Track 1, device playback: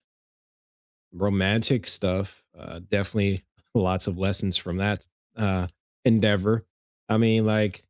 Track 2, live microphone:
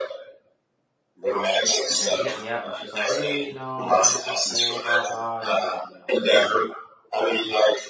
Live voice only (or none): Um, and she hit me up and she's like, hey, you know, I'm I'm at this school, blah blah, and like